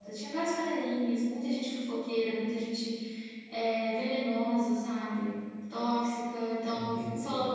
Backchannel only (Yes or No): Yes